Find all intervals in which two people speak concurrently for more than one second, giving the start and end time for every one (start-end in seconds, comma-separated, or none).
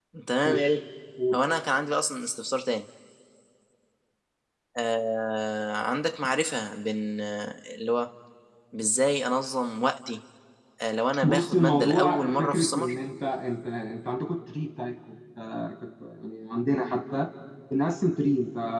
11.2-12.9